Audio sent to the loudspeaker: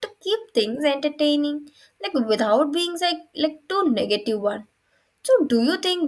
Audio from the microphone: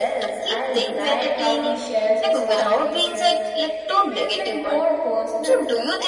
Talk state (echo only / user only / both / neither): both